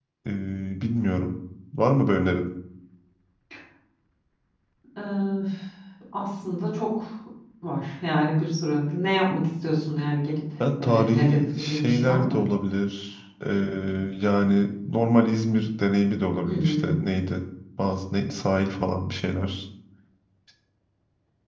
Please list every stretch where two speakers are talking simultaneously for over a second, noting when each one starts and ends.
10.8-12.4

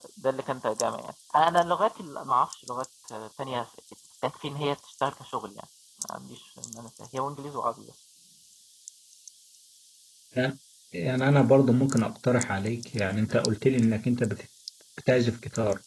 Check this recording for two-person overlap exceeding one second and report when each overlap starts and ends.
none

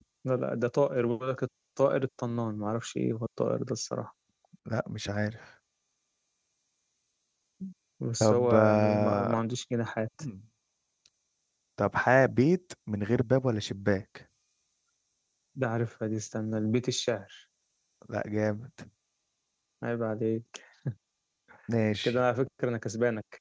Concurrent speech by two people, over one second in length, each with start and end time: 8.2-9.4

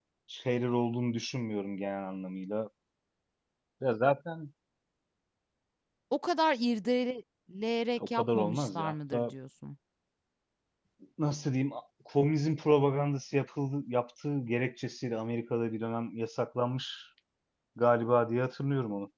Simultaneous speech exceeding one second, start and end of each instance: 8.1-9.3

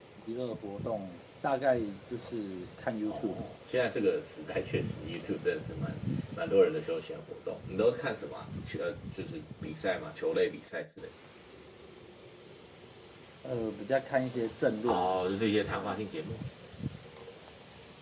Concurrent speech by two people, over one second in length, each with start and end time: none

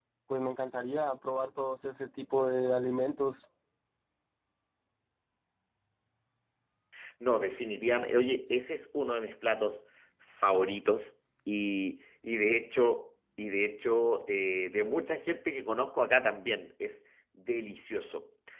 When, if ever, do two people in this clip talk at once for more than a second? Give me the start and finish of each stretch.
none

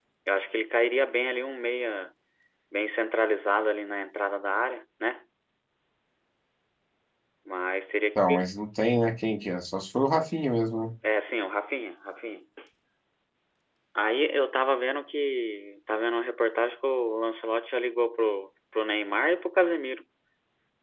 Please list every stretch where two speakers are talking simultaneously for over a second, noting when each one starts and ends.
none

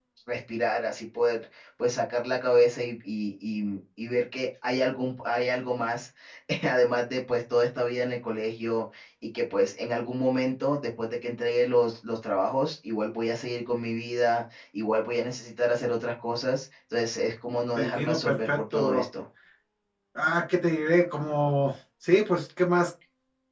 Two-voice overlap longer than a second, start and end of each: 17.8-19.1

